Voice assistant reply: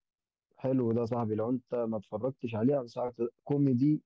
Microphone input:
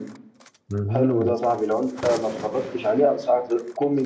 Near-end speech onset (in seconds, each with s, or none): 0.7 s